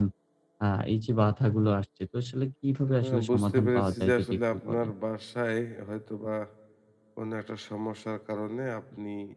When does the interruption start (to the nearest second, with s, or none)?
3 s